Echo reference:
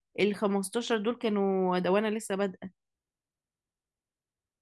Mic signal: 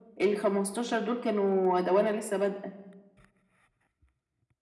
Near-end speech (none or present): none